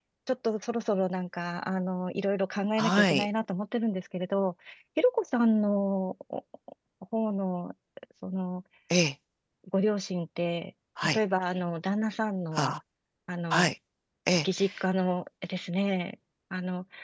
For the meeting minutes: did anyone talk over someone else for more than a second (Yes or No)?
No